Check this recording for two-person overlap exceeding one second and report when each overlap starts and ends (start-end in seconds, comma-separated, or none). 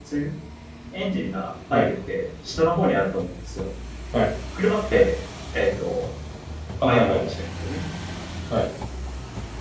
none